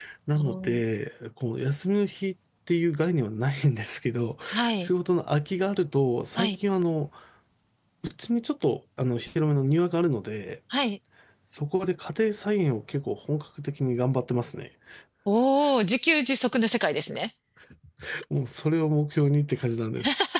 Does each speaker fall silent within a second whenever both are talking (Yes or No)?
Yes